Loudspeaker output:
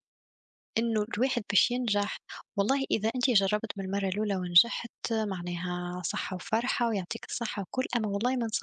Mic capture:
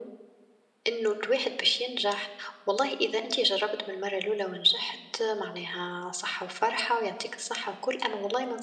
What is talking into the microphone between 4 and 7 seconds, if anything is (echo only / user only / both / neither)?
echo only